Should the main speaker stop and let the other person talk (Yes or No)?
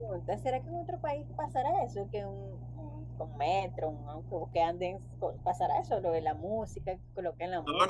Yes